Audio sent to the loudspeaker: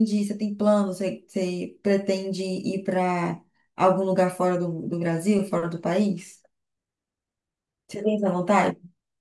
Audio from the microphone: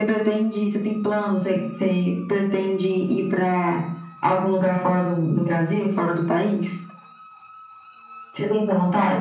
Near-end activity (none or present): none